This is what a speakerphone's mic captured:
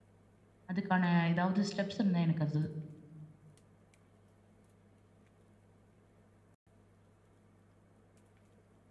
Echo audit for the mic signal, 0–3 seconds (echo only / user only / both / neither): user only